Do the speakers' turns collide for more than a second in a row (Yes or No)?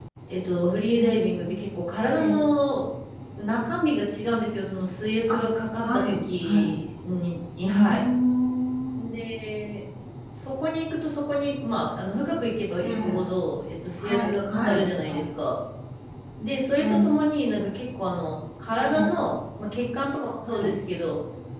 Yes